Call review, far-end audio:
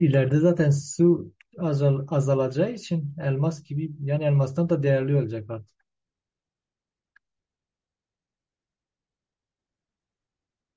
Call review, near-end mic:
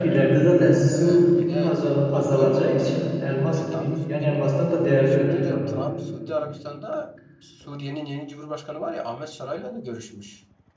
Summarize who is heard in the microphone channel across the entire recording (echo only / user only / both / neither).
both